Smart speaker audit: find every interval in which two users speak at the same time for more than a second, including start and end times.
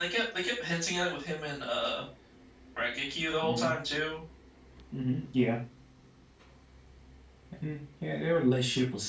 none

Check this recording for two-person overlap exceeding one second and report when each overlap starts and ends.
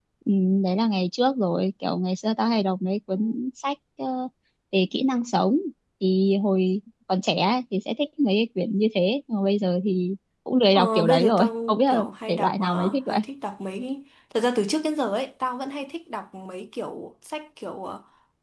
10.8-13.2

